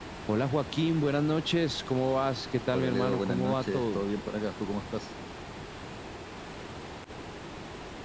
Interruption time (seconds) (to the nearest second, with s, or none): 3 s